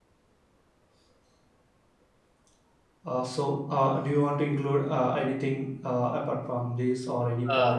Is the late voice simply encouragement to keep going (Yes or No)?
No